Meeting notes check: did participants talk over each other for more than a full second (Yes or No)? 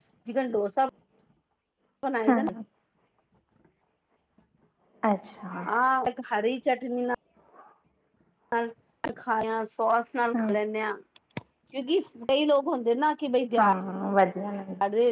No